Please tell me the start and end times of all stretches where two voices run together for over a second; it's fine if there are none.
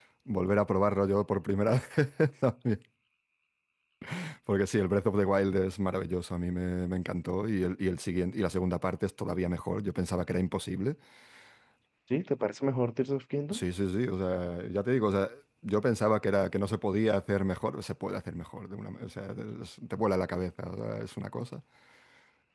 none

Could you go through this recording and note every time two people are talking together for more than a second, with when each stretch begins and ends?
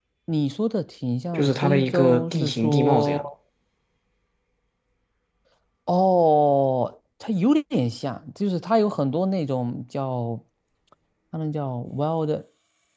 1.3-3.2

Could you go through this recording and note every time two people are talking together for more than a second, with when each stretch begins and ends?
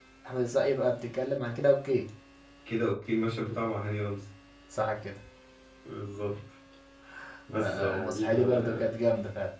7.6-8.9

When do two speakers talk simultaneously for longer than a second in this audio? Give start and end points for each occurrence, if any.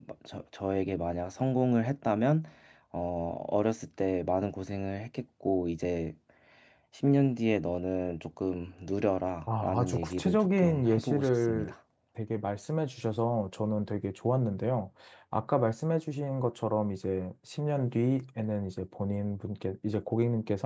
9.6-11.7

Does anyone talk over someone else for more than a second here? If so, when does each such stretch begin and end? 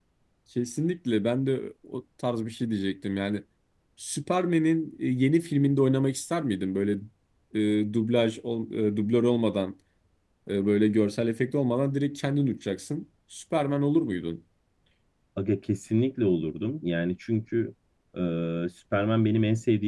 none

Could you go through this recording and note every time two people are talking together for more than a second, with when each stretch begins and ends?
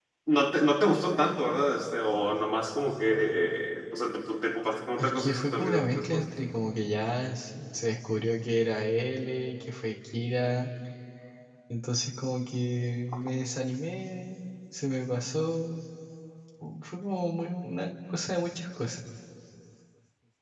5.0-6.2

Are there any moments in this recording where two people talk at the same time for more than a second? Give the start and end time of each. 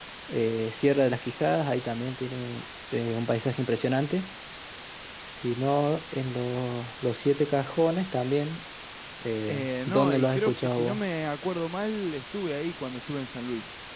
9.5-11.0

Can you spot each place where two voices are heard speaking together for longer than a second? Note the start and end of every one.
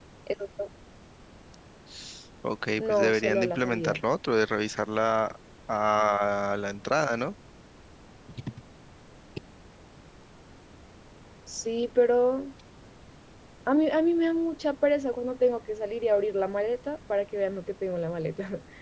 2.8-4.0

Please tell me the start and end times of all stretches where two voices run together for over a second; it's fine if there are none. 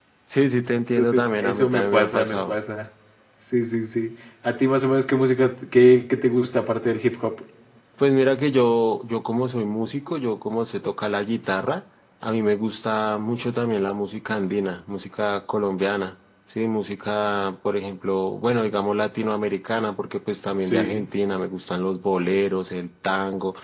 1.0-2.6

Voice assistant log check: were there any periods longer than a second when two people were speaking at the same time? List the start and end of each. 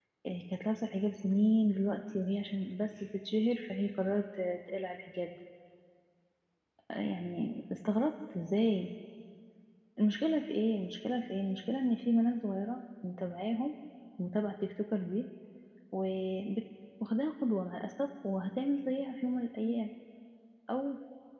none

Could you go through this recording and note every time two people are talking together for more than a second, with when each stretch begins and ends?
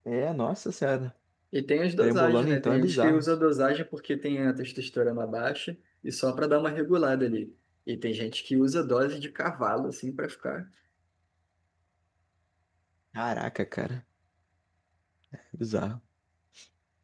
2.0-3.3

